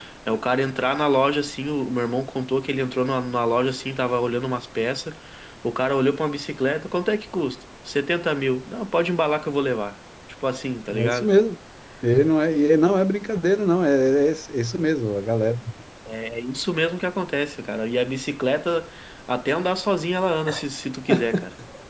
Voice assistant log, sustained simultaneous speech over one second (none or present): none